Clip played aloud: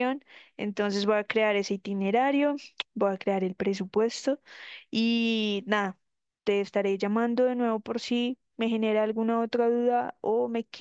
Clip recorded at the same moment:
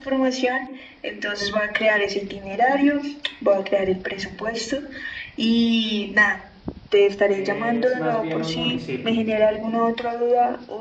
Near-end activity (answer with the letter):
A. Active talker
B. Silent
A